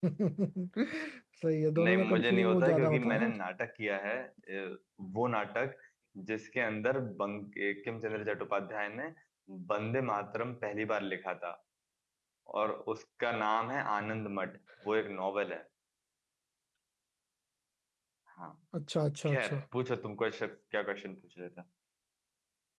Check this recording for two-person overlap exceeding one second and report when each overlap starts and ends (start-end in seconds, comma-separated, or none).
1.8-3.4